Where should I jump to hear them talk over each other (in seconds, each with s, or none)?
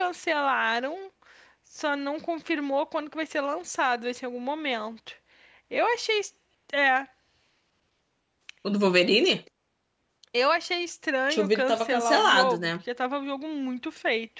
11.3 s